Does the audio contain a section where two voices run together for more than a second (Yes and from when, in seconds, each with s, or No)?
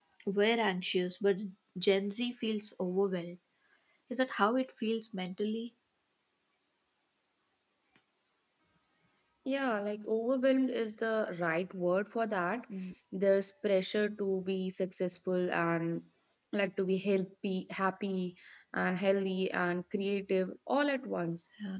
No